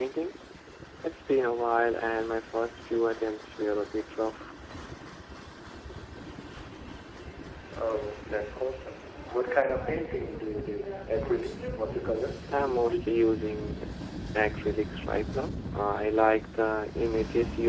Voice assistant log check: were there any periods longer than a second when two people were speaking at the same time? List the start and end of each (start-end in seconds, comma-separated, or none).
none